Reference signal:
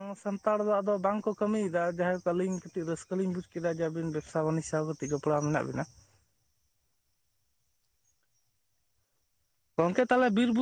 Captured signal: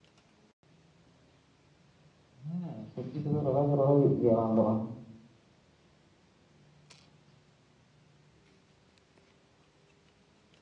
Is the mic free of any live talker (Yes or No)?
No